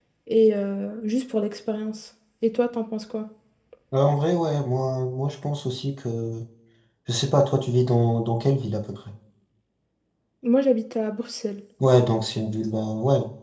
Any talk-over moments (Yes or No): No